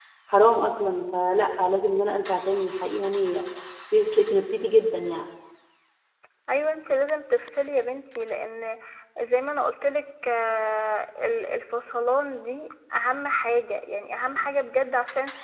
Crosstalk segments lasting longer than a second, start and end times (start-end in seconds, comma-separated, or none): none